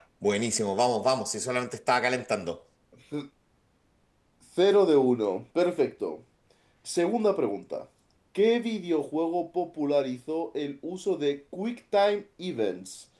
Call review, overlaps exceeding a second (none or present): none